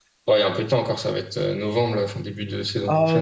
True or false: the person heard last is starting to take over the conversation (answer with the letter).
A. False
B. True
B